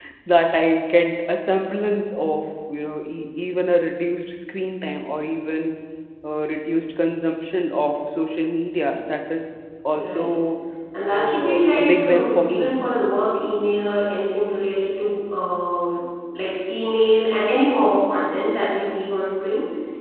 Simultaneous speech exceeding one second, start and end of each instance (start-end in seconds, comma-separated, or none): 11.1-12.7